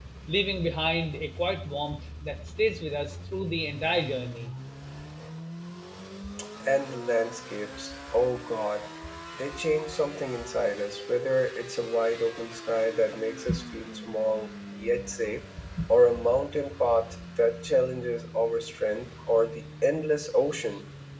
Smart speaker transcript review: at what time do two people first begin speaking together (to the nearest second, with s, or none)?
none